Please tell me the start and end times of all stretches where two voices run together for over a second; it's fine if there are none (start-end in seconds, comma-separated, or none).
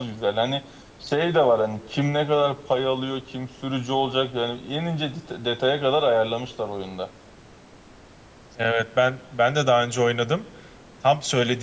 none